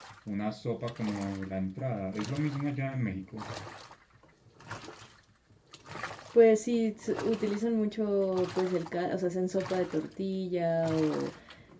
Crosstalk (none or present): none